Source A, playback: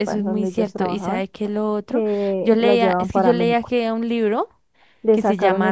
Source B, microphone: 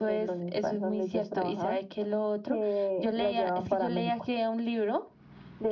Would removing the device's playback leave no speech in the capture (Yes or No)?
Yes